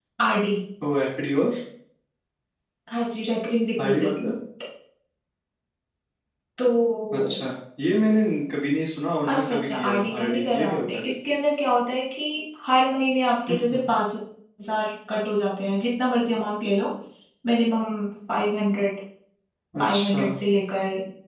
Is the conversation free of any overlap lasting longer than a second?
No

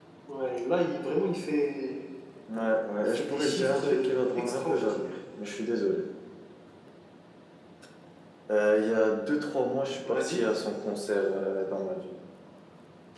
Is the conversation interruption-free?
No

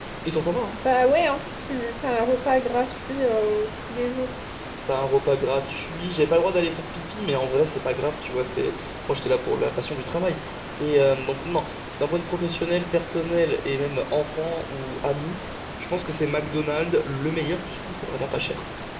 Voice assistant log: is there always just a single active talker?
Yes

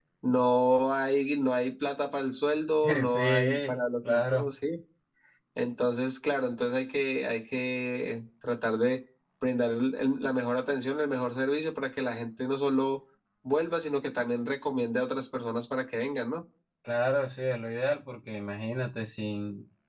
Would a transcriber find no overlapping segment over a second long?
No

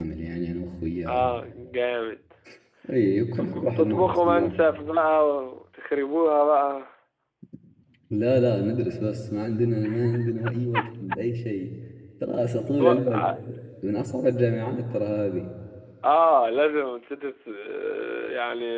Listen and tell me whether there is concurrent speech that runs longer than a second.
Yes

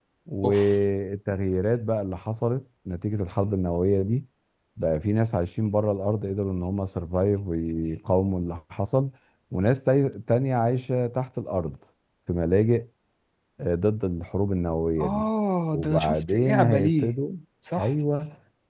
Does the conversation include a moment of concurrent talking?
Yes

